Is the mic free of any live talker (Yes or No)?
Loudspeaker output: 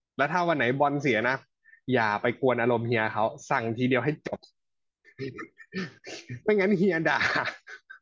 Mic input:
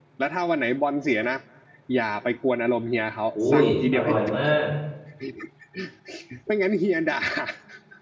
No